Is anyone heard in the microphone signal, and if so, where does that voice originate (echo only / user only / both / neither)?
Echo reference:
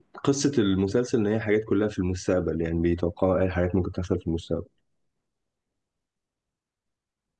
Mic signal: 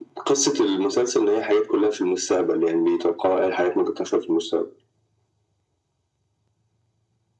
echo only